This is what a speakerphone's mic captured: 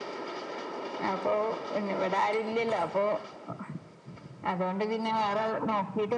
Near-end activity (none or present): none